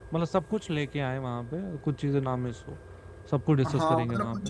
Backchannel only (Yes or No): No